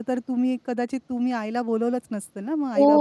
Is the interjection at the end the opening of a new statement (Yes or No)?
Yes